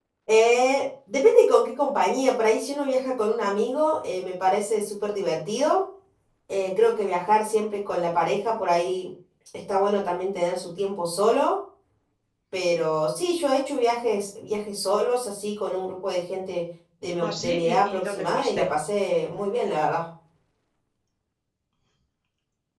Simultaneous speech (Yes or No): Yes